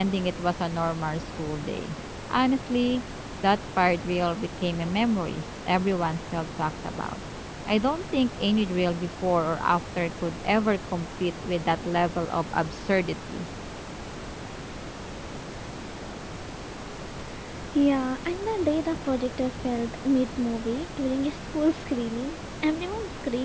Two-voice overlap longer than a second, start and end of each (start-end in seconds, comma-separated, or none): none